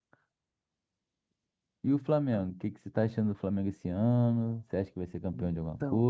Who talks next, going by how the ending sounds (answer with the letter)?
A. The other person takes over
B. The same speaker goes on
A